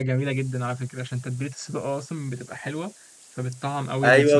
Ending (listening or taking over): taking over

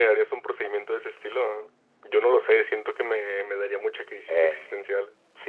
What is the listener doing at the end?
taking over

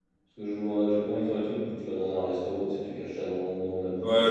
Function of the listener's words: taking over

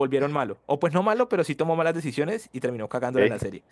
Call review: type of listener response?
taking over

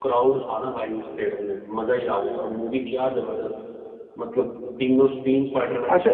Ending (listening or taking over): taking over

